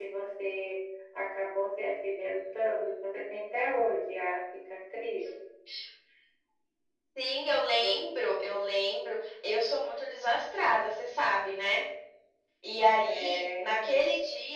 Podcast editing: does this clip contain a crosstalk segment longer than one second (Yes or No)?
Yes